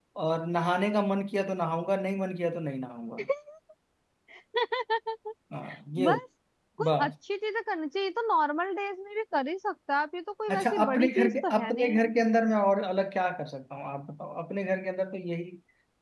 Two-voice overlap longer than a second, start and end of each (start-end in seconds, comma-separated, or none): 10.5-12.0